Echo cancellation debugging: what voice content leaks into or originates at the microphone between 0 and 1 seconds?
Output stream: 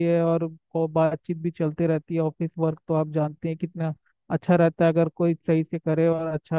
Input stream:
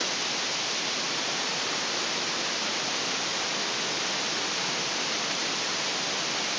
neither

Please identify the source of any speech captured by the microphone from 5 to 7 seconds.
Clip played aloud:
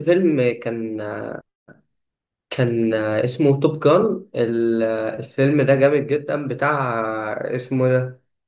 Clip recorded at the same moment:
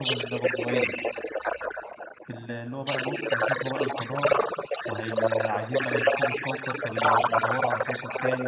both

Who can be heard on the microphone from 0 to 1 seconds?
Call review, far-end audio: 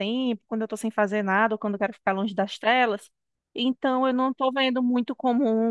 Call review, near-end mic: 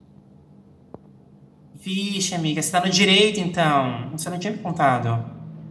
neither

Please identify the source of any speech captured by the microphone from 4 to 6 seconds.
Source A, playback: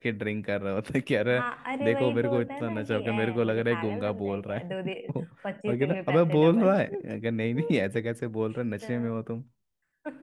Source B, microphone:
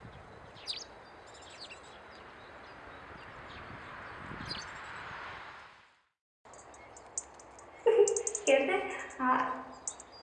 neither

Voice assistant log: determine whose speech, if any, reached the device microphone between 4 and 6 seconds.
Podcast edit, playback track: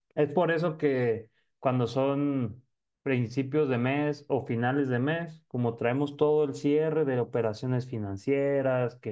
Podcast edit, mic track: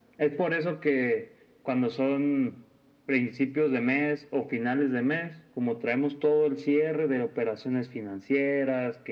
echo only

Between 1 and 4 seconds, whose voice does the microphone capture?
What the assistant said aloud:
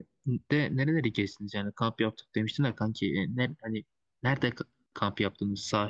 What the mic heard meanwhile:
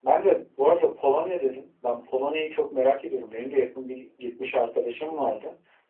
user only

